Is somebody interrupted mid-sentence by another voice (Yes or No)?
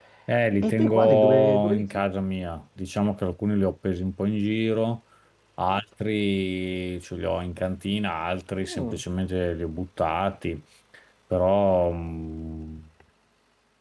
Yes